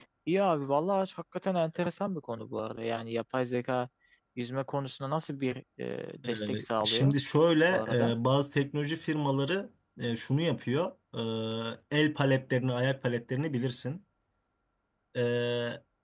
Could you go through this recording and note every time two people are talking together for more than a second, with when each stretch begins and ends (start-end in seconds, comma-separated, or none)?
none